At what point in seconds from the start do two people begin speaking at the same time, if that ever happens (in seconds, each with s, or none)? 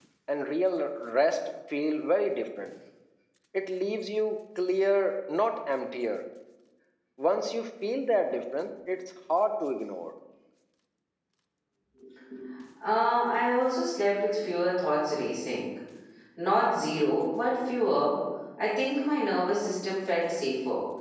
none